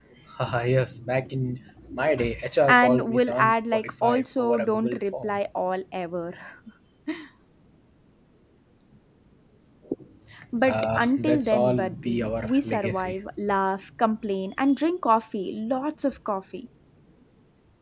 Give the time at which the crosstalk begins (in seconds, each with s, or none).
2.7 s